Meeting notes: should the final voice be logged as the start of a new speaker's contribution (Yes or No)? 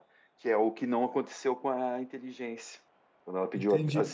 Yes